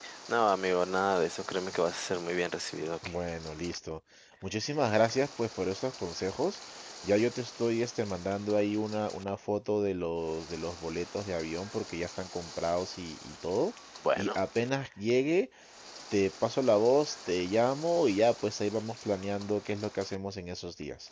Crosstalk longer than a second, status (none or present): none